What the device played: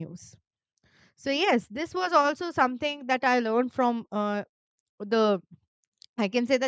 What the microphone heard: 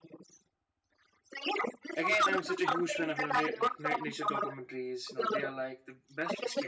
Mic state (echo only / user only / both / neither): both